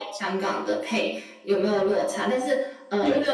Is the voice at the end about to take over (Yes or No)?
No